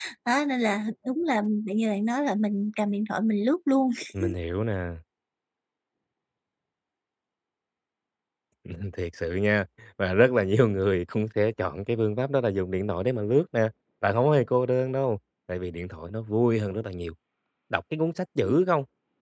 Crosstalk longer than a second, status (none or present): none